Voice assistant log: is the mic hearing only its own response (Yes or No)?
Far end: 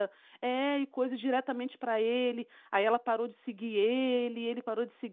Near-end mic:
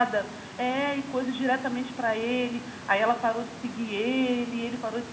Yes